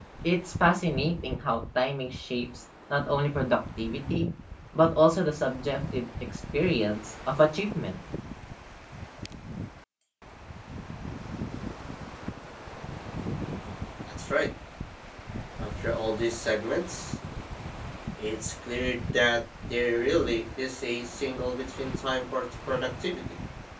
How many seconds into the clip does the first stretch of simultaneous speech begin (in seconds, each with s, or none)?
none